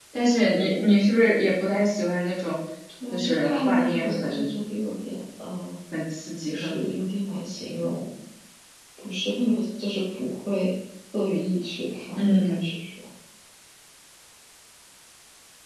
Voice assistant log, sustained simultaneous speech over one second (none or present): present